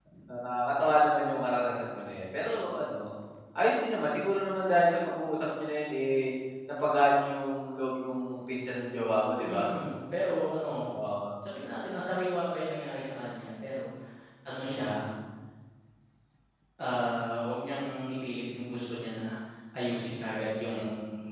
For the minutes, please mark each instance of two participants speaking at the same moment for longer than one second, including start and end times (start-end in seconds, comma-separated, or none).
none